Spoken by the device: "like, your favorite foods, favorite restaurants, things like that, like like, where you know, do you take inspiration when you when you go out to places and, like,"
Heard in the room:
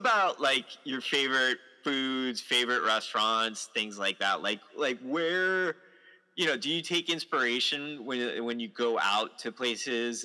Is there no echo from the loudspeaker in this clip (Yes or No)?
No